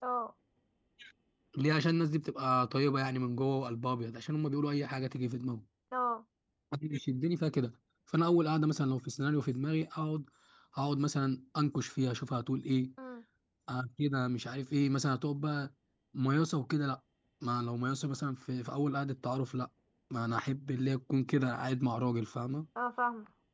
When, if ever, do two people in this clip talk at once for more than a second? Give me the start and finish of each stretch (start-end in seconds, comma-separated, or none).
none